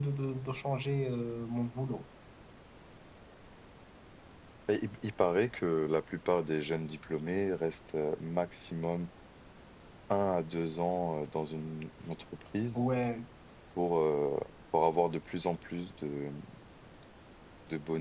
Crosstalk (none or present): none